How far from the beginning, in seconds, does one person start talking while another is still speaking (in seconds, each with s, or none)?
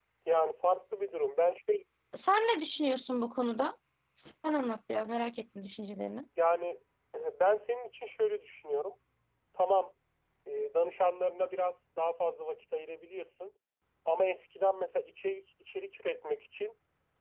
none